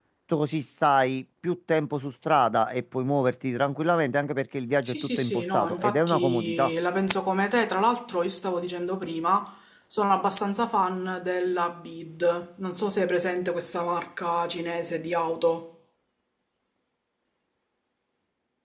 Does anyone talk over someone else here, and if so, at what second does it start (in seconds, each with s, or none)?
4.8 s